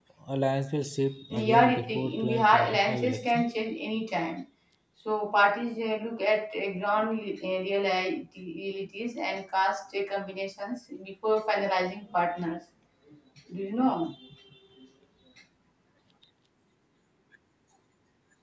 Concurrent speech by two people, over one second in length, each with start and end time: 1.3-3.4

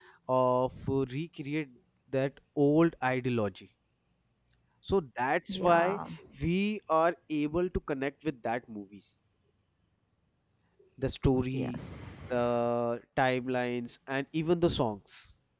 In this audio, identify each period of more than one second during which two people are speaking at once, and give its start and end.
none

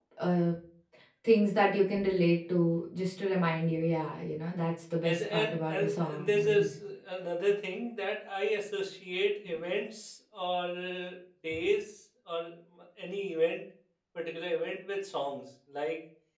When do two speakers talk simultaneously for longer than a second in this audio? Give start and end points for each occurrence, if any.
5.0-6.7

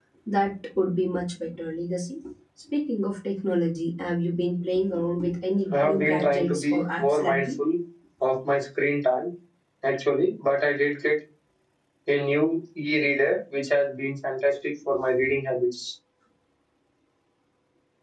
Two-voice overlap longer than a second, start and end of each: 5.7-7.6

